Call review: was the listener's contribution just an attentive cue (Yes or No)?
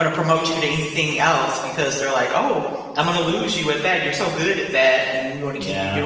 Yes